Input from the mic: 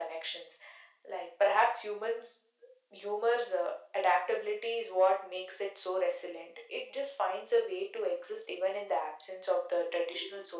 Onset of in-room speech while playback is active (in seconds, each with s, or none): none